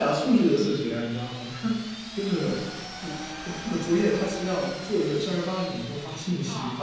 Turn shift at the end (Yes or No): No